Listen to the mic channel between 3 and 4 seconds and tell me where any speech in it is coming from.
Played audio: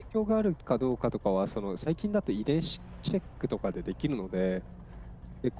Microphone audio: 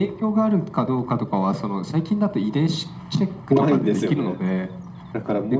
both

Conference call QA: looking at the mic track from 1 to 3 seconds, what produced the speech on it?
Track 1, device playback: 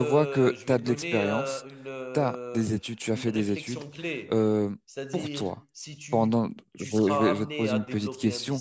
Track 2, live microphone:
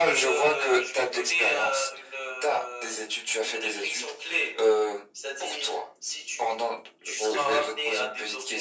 echo only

